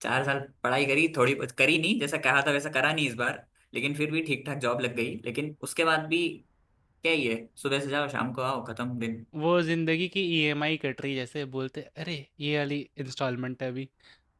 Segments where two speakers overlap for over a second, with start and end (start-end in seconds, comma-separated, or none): none